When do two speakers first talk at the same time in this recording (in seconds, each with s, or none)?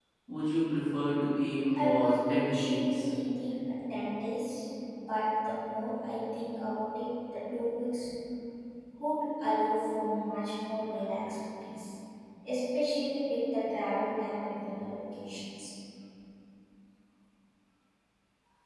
1.7 s